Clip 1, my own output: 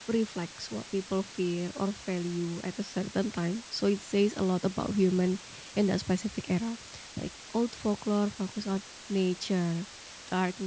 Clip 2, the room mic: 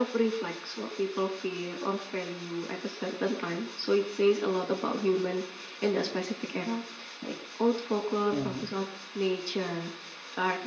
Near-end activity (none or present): present